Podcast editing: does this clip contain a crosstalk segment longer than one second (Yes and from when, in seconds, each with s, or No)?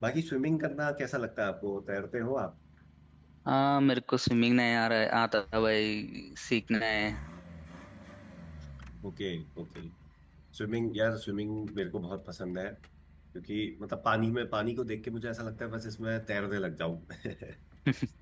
No